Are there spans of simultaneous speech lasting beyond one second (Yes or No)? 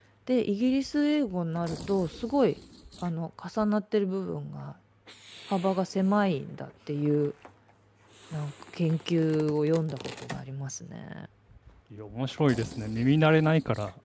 No